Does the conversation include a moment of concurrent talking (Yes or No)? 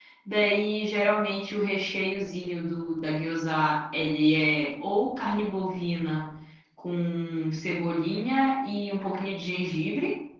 No